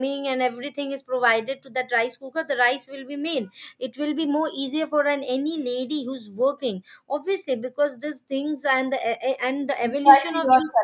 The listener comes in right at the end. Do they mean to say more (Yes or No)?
Yes